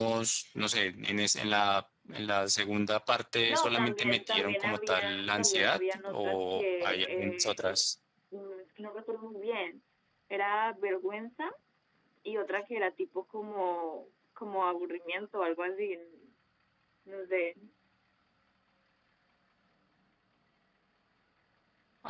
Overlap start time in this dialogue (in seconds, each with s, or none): 3.5 s